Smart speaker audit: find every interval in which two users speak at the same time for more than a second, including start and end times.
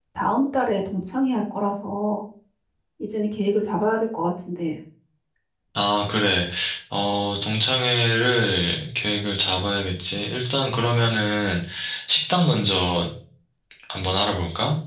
none

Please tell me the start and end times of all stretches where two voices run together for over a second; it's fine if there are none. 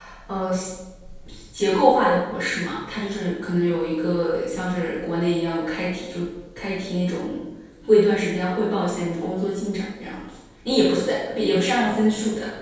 none

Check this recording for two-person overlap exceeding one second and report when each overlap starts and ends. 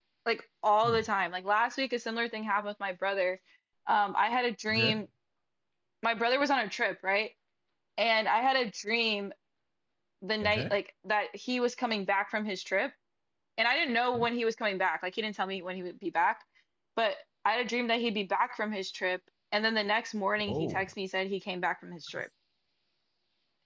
none

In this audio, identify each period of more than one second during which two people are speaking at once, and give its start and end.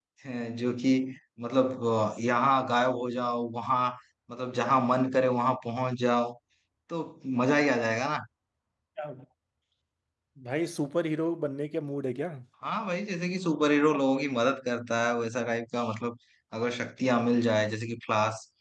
none

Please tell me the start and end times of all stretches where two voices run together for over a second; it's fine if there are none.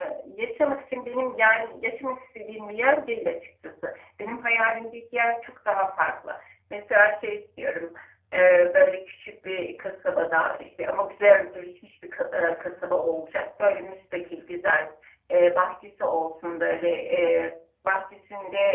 none

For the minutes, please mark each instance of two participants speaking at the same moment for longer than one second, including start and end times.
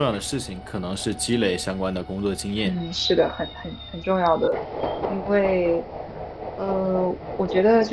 none

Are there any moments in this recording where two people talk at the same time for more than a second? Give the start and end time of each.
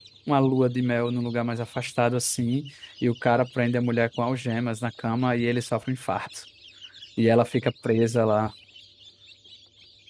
none

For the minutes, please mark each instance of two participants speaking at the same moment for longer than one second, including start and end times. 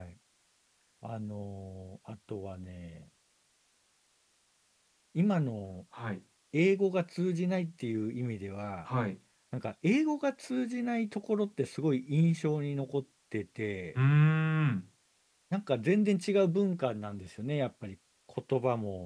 none

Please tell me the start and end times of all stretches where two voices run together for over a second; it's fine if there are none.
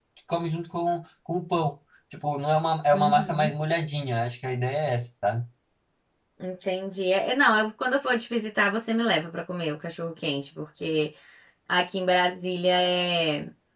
none

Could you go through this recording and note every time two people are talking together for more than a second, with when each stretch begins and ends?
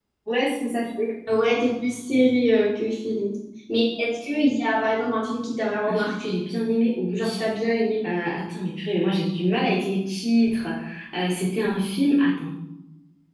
none

